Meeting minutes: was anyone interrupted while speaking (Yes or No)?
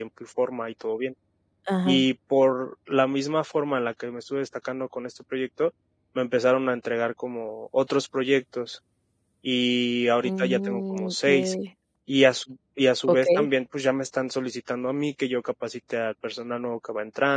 Yes